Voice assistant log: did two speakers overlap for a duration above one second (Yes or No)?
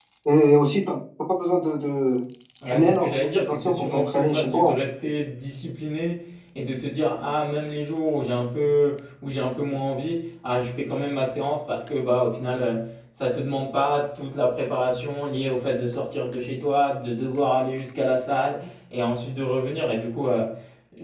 Yes